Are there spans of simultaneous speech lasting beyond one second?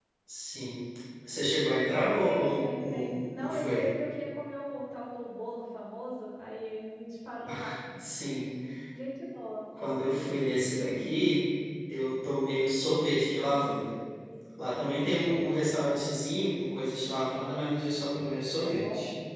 Yes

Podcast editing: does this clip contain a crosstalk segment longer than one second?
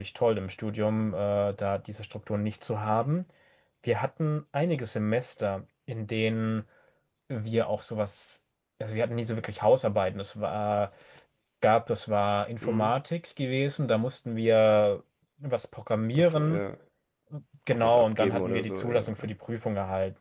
Yes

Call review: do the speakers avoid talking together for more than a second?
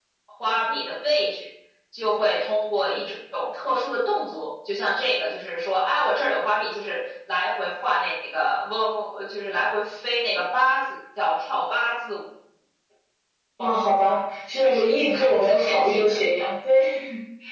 No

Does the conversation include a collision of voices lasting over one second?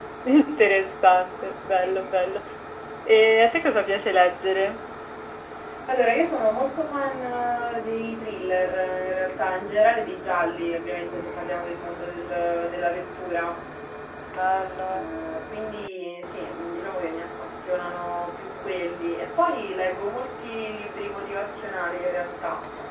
No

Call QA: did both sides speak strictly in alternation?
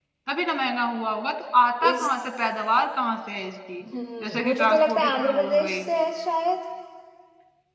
No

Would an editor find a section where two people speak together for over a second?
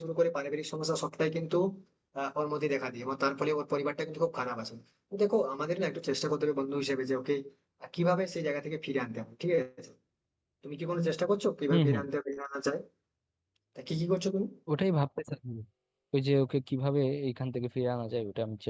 No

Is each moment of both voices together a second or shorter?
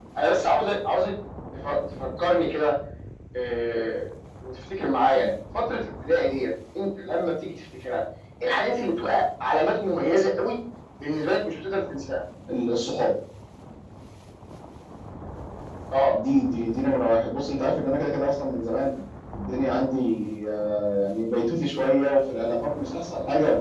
Yes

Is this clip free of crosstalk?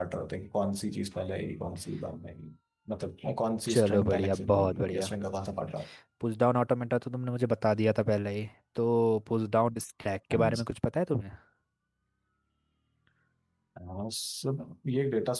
No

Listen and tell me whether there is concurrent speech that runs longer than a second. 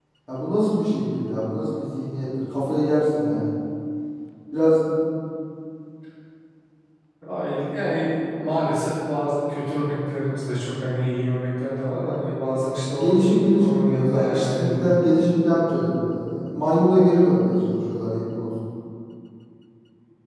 Yes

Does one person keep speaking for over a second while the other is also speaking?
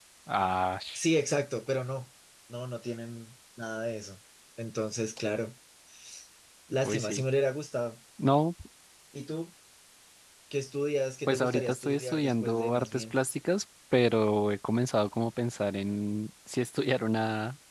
Yes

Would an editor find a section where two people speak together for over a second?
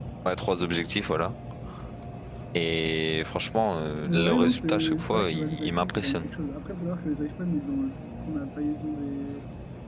Yes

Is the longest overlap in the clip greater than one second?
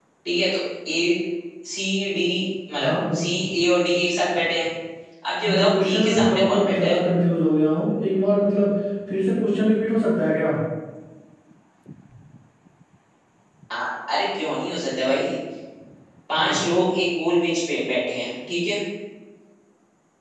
Yes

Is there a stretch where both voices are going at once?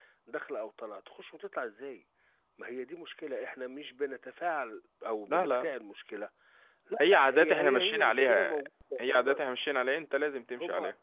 Yes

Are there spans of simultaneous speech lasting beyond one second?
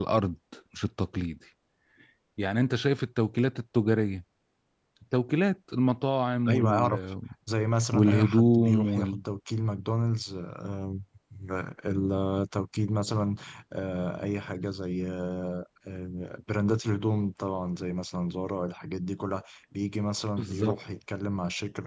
Yes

